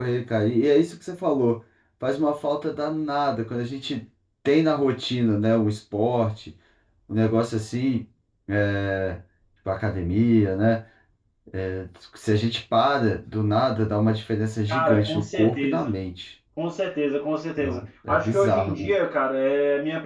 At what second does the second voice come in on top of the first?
15 s

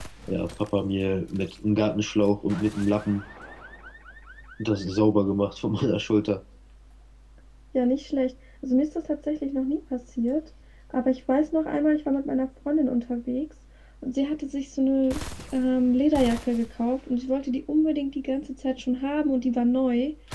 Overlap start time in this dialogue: none

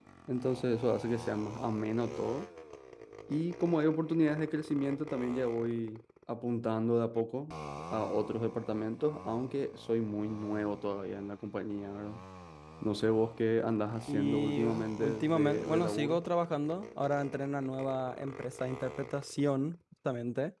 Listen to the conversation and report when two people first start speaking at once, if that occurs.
14 s

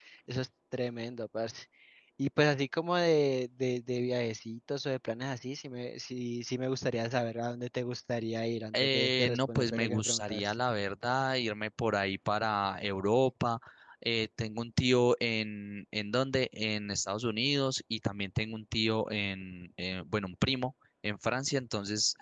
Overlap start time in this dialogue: 9 s

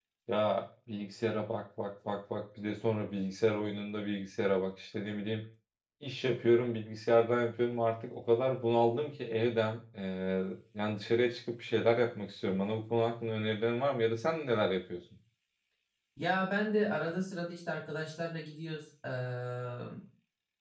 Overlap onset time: none

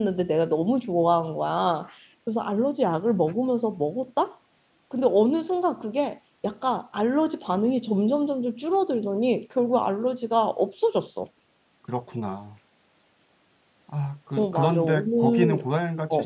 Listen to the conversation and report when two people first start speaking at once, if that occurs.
14 s

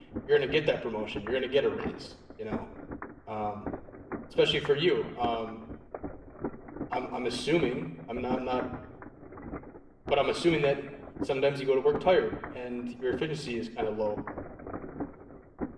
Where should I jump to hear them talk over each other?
none

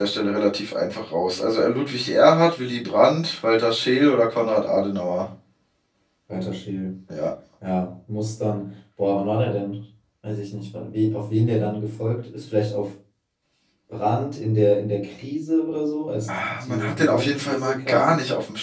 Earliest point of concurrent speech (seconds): 16 s

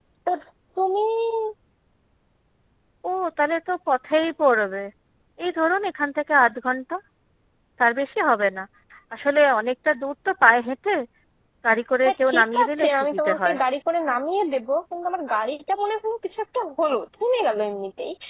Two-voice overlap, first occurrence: 12 s

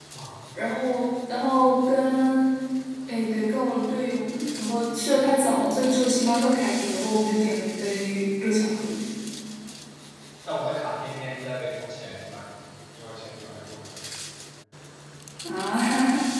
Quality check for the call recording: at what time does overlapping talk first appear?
none

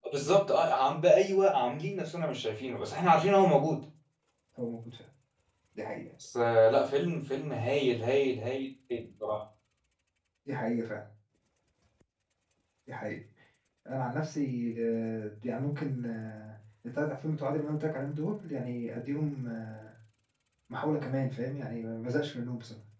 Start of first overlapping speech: none

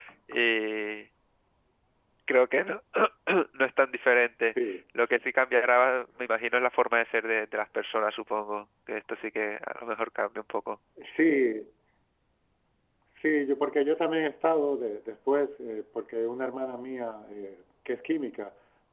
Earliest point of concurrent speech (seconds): none

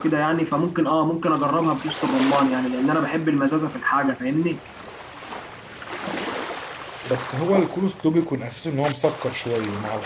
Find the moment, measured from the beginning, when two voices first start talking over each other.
none

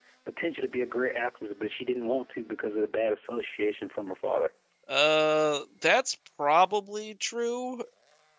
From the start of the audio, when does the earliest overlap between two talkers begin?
none

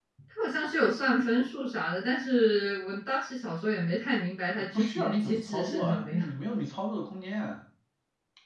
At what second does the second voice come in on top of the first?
5 s

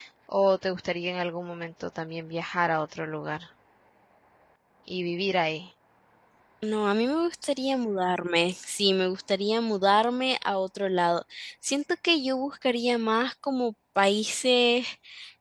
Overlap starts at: none

